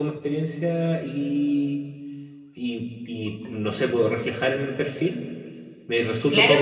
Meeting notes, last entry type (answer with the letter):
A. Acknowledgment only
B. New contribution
B